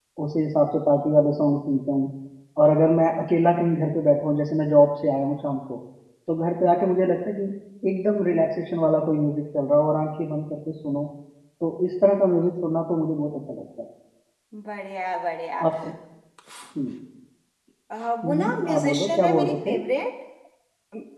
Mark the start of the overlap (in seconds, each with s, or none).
18.2 s